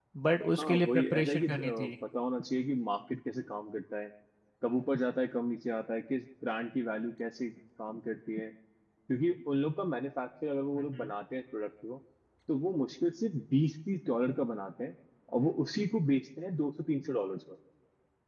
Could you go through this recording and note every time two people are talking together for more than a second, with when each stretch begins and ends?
0.6-1.9

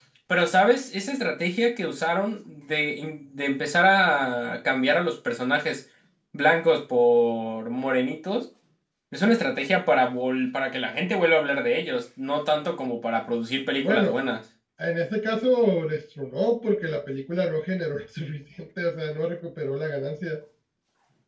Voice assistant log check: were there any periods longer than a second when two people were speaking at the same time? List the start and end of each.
none

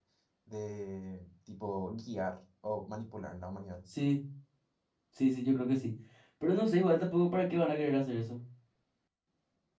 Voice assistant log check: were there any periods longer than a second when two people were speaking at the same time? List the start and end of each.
none

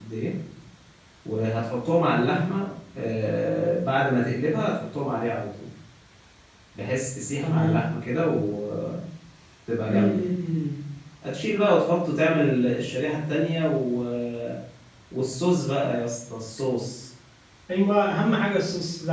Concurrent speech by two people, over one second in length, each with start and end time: none

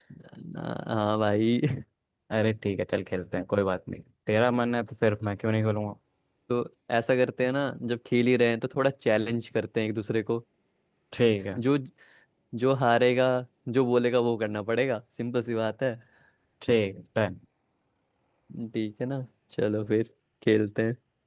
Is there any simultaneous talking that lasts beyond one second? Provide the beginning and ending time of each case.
none

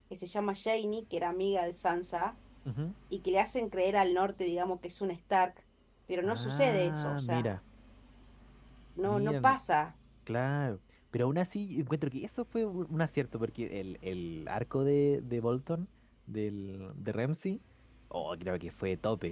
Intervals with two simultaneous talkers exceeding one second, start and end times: 6.2-7.5

